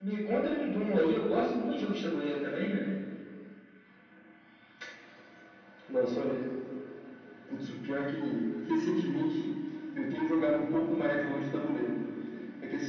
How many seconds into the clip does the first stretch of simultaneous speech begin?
none

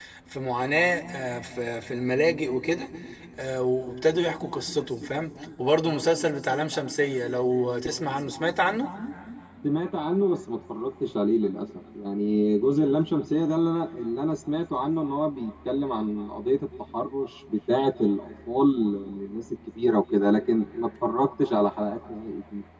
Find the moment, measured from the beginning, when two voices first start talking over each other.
none

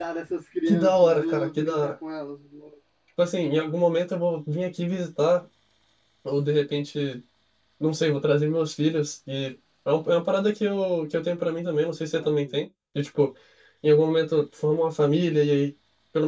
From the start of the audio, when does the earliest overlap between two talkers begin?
1 s

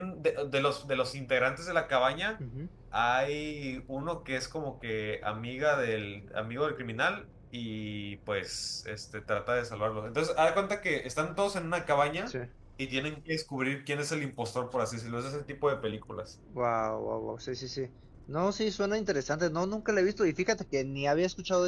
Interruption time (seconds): none

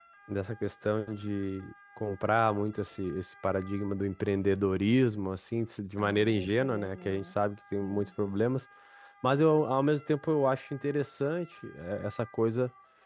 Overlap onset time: 6 s

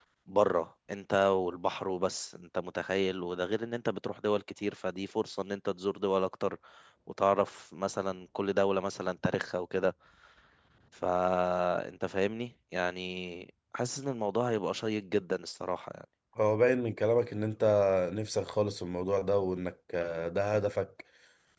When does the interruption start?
none

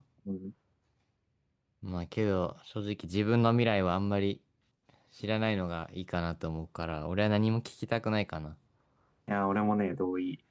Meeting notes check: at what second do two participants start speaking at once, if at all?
none

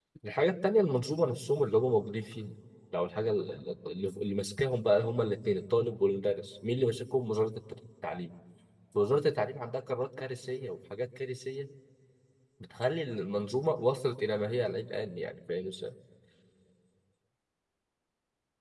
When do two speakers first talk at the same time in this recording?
none

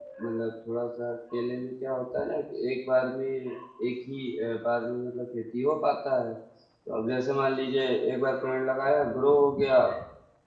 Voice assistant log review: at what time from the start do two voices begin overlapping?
none

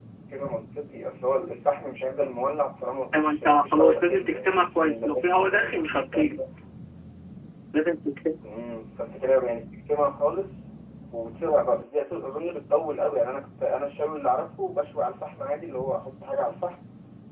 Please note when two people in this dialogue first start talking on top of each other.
3 s

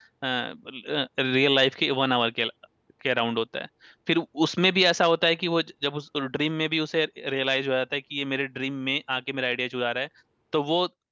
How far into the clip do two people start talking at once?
none

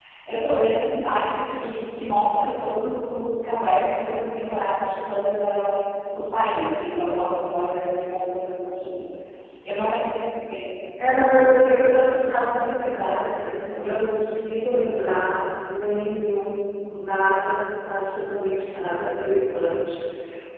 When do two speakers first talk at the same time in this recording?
none

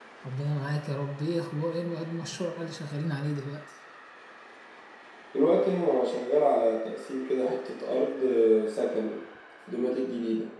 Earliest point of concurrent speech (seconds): none

